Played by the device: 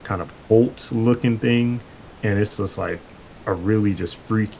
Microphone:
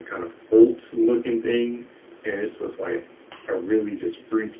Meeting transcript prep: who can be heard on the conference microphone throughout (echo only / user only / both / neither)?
echo only